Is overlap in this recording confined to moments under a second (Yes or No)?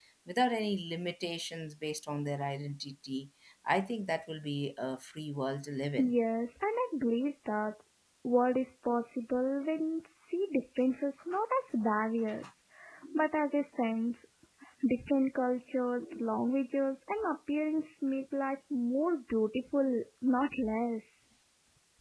Yes